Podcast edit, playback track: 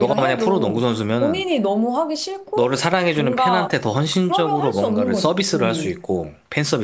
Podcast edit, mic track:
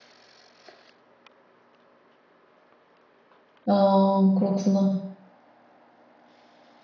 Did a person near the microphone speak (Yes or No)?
Yes